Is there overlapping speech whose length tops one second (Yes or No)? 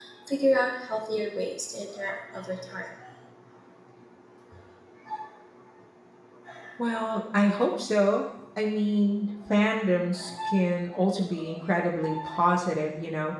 No